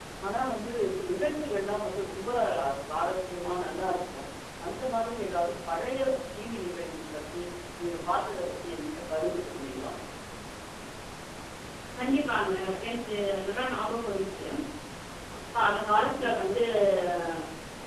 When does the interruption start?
none

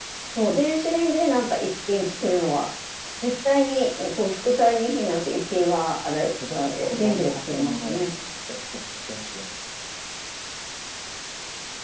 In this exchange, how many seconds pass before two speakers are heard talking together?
6.5 s

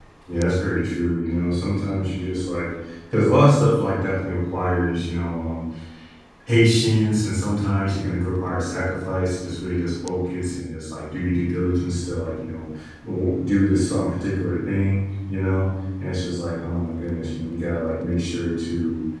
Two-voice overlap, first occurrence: none

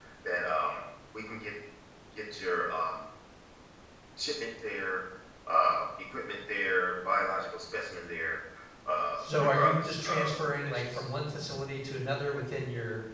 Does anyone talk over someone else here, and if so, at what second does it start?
9.2 s

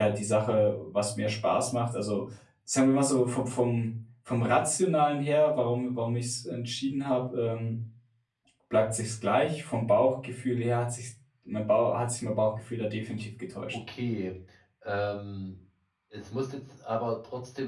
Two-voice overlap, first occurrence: none

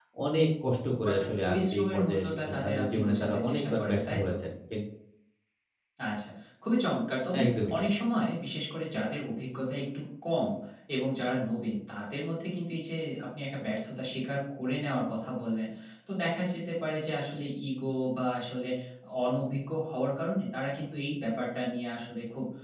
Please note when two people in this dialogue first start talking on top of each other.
1.1 s

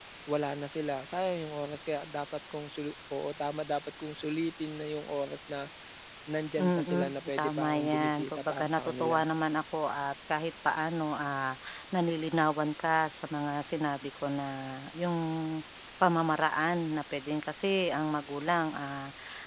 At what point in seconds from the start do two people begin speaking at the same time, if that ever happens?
6.6 s

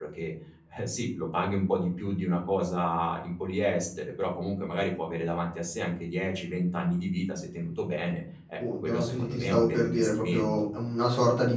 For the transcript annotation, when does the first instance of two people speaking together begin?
8.6 s

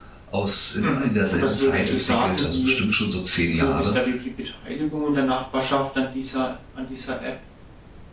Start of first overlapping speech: 0.8 s

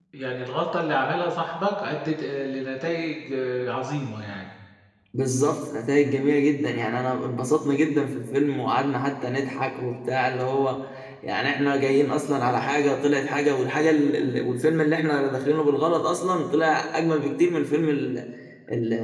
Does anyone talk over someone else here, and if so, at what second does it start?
none

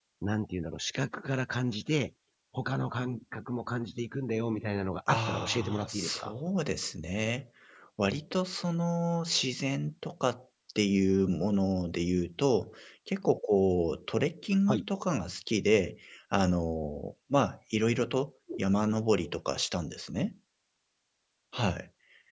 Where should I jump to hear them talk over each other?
5.1 s

